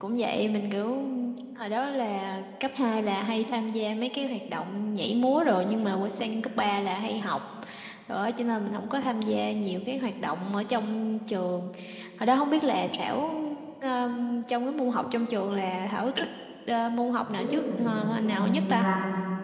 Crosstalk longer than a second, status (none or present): present